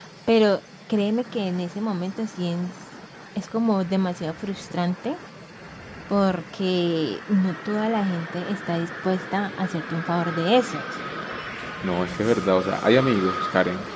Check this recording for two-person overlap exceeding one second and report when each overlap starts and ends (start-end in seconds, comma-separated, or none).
none